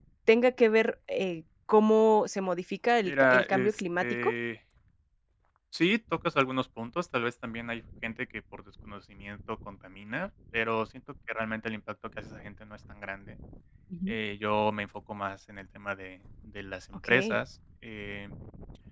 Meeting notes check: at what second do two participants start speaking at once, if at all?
3 s

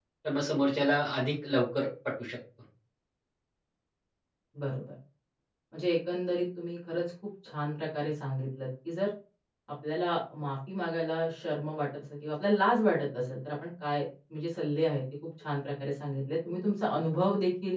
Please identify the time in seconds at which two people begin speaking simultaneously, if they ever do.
none

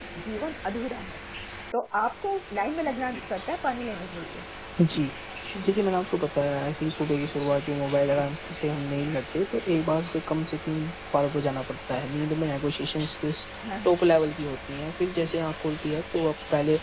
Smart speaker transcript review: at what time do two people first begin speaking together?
none

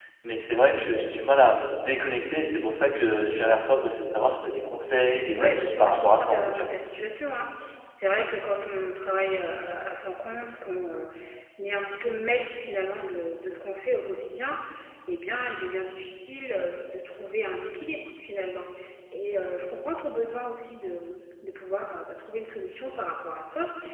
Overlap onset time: 5 s

